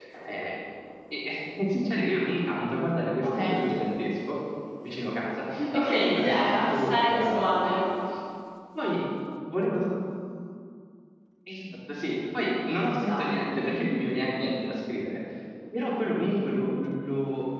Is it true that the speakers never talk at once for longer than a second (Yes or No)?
No